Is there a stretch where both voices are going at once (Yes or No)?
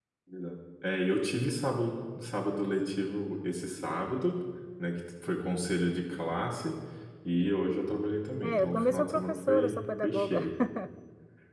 Yes